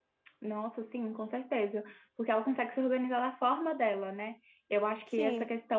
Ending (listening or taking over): listening